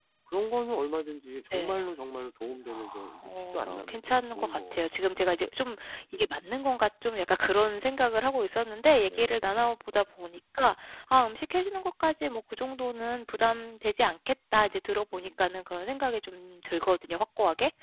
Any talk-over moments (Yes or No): Yes